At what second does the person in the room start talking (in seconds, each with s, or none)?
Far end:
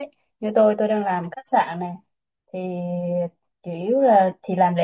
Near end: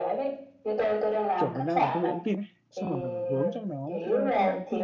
1.3 s